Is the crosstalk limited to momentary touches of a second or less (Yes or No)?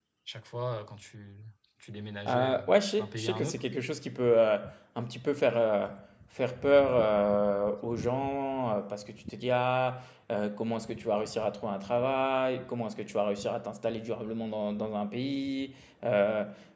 No